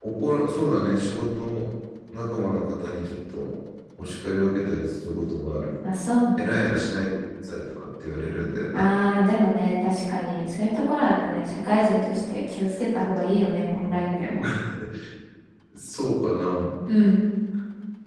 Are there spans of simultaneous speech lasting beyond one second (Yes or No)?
No